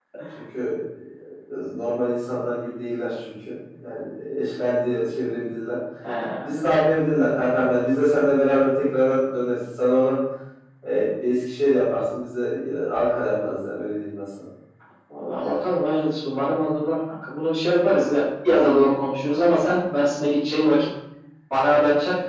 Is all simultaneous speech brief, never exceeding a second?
Yes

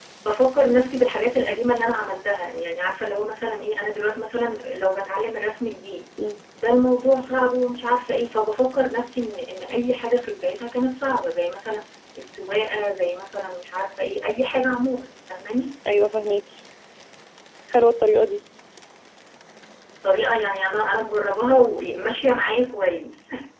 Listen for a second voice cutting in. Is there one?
No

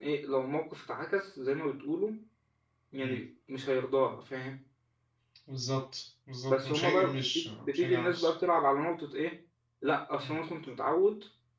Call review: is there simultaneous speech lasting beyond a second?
Yes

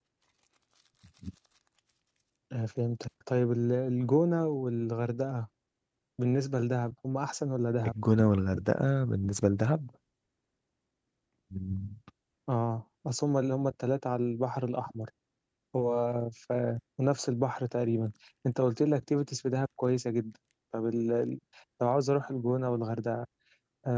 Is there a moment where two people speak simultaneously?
No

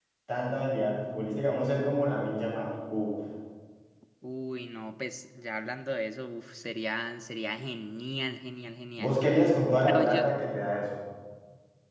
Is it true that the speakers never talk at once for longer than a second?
Yes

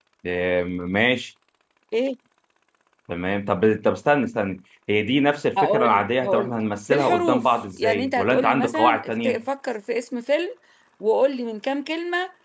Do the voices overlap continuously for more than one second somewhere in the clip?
Yes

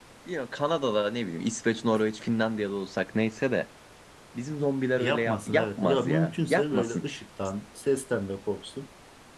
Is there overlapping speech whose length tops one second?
Yes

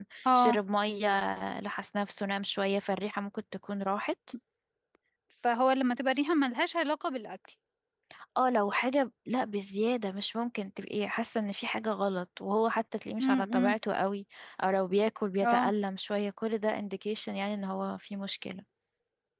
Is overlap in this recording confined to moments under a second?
Yes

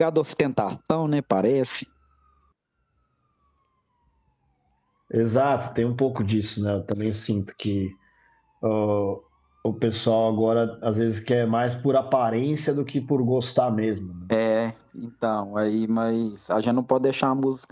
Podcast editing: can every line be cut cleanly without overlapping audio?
Yes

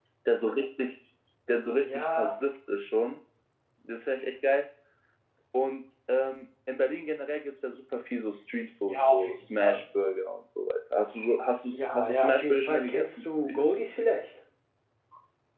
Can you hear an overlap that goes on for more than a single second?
Yes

